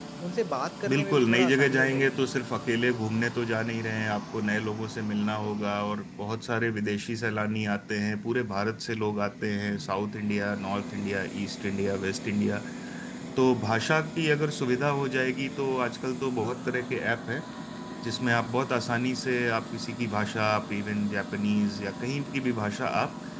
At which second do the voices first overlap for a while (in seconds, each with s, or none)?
0.9 s